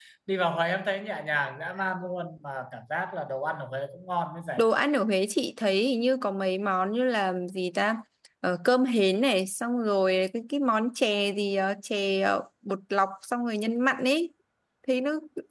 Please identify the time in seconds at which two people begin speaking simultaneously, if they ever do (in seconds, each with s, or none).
none